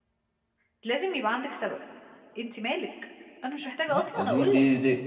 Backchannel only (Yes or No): No